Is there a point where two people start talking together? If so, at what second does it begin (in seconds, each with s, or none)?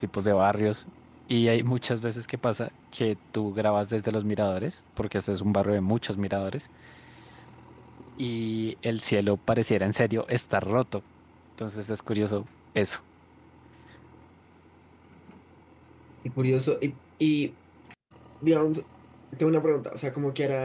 none